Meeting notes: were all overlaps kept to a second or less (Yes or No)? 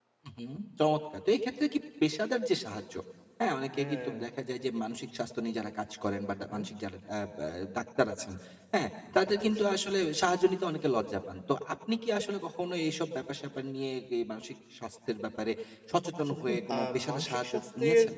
No